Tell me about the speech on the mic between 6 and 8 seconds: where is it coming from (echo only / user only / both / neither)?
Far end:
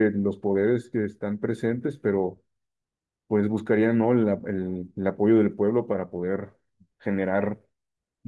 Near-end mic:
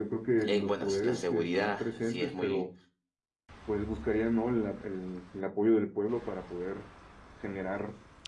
echo only